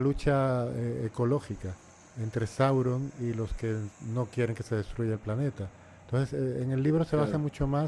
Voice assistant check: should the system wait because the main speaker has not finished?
Yes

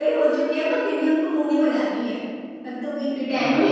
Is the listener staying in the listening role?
No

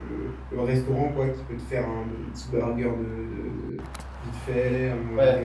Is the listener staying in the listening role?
No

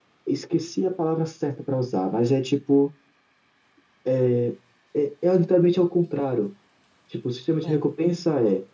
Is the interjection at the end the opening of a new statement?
No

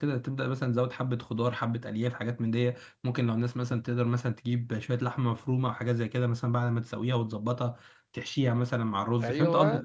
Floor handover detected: No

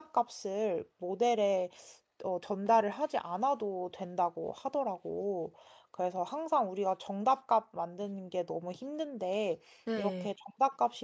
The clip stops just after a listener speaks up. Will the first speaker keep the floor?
Yes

